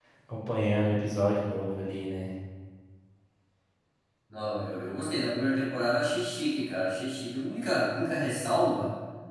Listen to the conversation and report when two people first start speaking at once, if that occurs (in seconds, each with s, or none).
none